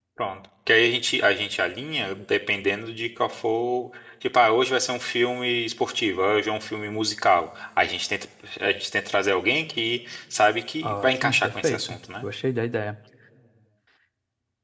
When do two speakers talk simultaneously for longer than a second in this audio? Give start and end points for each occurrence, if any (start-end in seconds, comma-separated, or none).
10.8-12.3